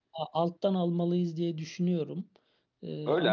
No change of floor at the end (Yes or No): No